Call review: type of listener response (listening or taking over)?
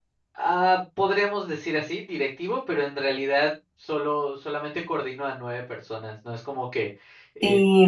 listening